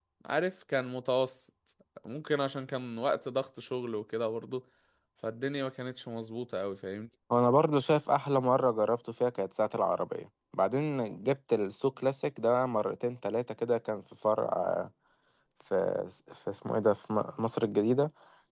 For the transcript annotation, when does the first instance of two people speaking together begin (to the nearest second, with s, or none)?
none